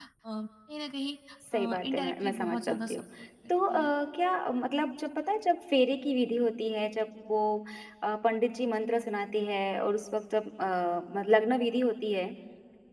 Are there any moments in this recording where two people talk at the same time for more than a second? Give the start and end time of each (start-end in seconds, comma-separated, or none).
1.5-3.0